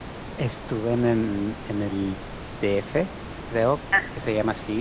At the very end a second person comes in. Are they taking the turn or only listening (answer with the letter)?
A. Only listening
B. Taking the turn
A